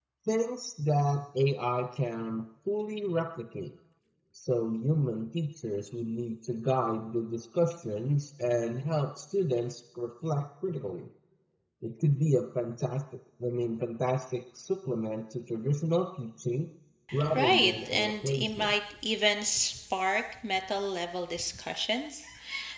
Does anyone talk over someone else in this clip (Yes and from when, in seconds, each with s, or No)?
Yes, from 17.3 s